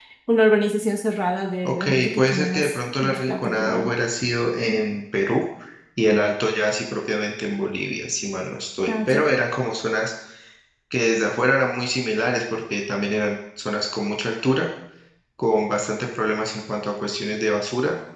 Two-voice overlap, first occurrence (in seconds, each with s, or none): 1.7 s